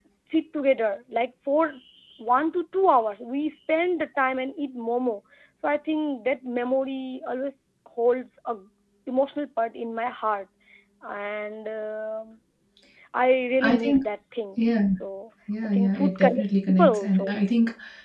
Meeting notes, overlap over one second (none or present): present